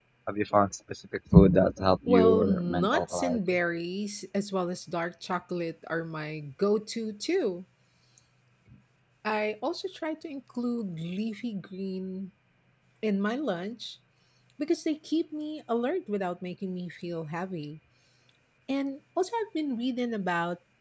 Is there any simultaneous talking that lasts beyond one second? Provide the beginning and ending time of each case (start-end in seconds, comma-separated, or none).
2.1-3.4